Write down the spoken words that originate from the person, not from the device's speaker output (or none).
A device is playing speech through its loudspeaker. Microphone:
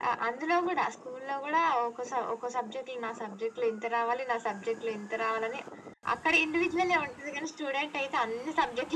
none